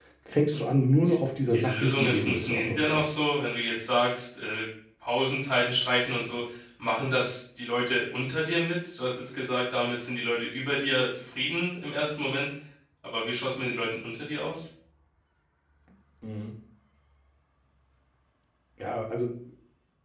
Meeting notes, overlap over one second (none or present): present